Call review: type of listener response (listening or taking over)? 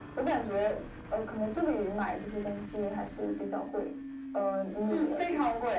taking over